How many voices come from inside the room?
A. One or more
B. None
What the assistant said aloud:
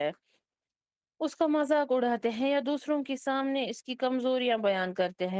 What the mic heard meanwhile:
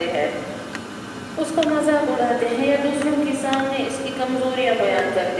B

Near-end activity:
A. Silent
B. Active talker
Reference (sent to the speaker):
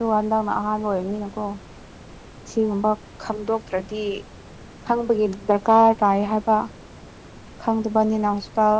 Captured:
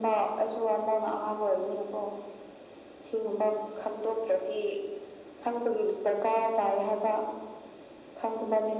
A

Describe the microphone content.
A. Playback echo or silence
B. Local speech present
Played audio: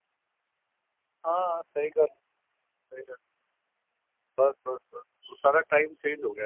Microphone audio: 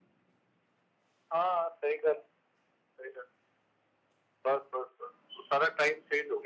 A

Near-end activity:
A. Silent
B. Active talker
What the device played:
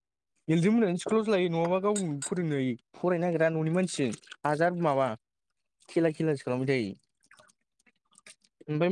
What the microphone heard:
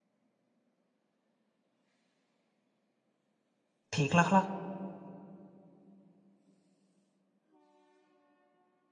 B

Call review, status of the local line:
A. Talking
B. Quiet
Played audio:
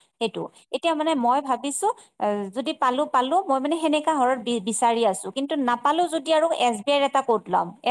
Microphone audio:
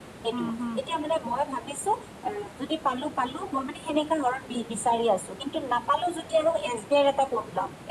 A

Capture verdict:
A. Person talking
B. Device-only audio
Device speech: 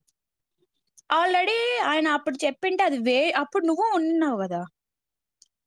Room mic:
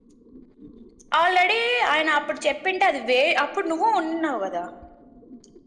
B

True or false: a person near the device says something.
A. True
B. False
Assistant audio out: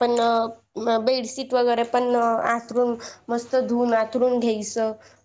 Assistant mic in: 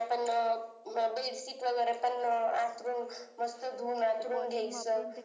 A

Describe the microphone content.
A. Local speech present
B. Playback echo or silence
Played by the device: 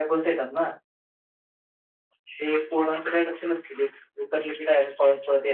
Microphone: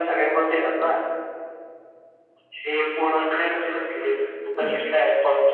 A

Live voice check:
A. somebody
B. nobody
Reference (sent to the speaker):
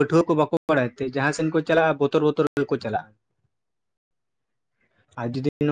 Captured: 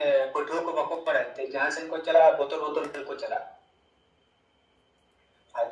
B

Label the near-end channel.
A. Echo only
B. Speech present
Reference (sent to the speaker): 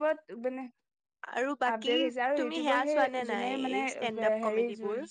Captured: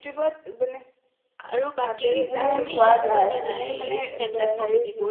B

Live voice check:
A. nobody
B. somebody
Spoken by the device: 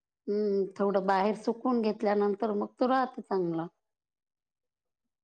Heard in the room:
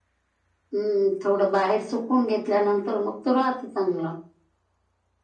A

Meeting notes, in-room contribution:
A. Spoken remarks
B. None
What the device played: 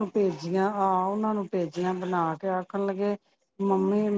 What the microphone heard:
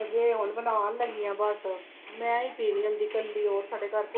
A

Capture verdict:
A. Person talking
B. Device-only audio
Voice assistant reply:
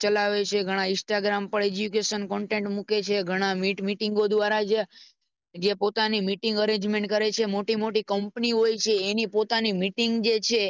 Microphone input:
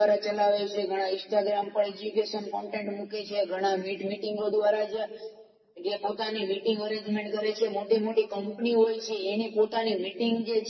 B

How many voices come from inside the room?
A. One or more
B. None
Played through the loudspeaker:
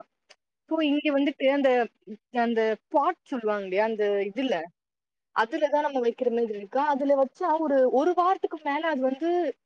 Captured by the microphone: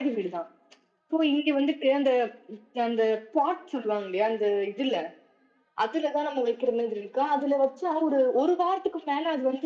B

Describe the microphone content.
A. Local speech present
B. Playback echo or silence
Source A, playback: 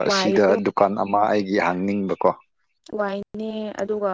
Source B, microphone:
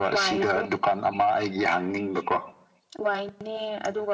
B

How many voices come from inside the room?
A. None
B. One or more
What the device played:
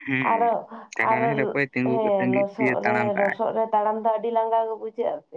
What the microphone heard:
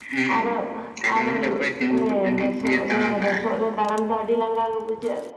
A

